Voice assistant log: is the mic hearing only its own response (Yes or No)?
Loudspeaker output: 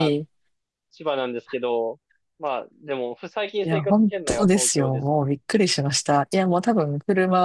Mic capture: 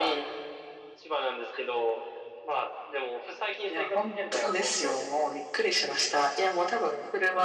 Yes